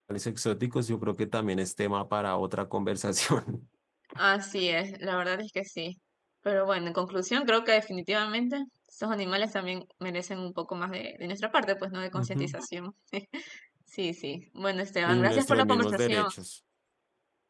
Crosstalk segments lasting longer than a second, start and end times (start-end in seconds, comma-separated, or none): 15.1-16.3